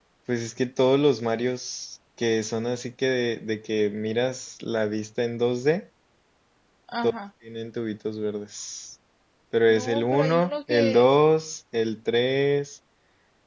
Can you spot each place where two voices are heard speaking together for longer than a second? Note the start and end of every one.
9.7-11.0

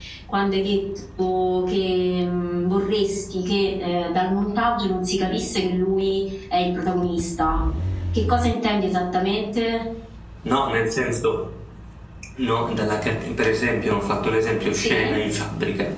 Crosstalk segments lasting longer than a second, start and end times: none

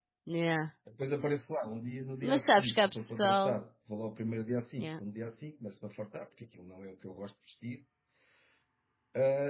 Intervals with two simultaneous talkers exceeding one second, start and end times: 2.2-3.6

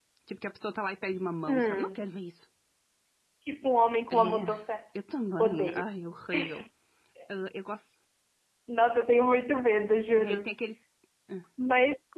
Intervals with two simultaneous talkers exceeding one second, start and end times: none

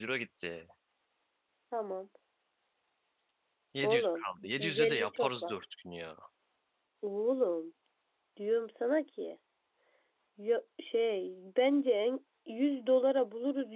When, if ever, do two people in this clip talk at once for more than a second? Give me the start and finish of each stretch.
3.8-5.6

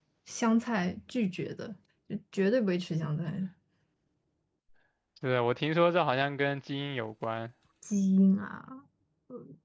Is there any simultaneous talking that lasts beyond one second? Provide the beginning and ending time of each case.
none

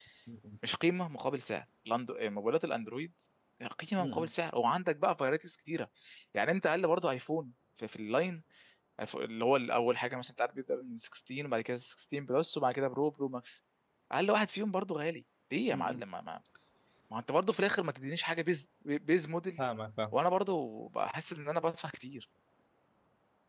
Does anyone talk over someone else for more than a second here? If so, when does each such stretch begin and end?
none

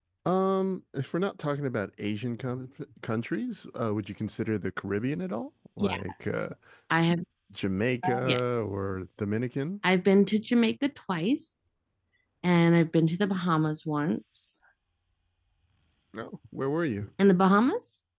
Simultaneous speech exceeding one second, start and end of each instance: none

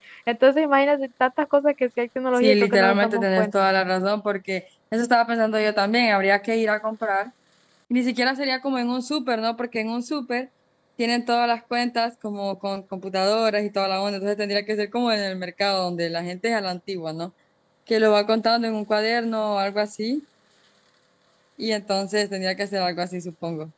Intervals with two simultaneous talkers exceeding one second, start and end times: 2.4-3.7

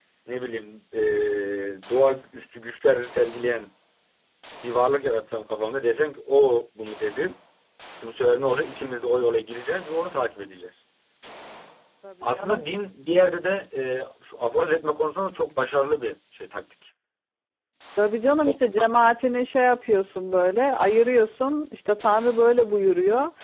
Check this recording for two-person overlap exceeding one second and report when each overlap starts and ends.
none

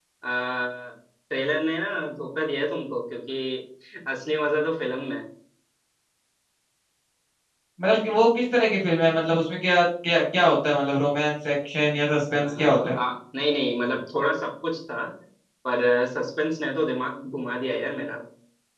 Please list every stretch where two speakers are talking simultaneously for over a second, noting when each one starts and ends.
none

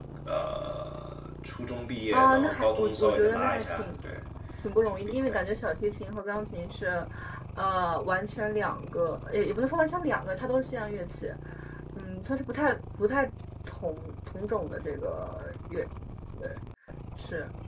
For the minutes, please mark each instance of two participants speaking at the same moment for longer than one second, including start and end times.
2.1-4.0

